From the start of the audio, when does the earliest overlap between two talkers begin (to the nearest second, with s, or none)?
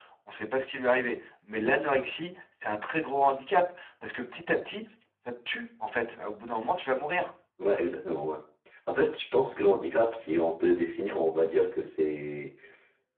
none